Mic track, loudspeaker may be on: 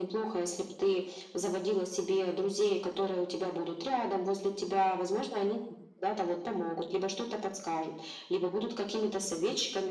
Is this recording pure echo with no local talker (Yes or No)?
Yes